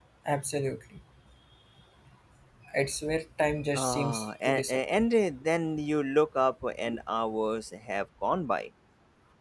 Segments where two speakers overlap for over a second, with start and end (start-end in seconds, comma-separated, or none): 3.7-5.1